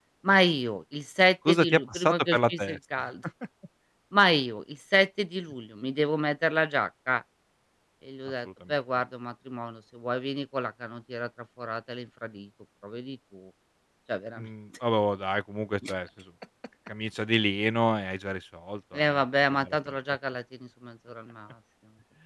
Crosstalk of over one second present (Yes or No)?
Yes